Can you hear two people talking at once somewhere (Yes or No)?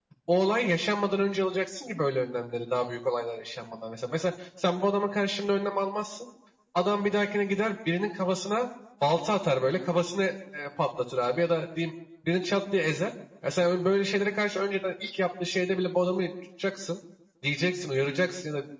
No